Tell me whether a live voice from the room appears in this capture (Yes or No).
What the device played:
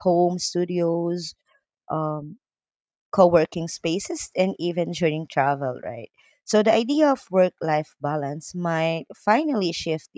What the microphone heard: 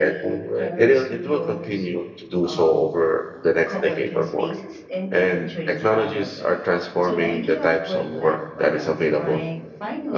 Yes